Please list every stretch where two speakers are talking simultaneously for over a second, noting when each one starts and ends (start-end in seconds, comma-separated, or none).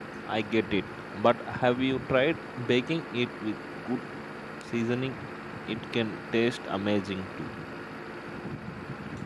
none